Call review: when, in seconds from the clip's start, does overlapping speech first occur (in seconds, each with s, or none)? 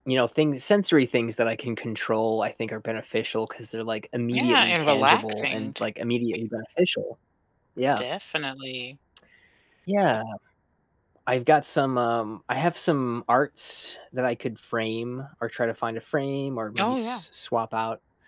4.3 s